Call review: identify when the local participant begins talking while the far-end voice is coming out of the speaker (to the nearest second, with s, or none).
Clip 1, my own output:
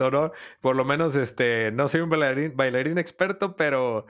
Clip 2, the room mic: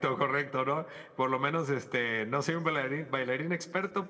none